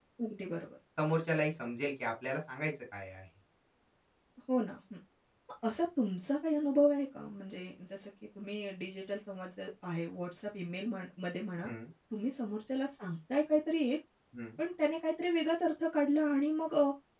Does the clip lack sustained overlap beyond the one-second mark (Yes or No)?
Yes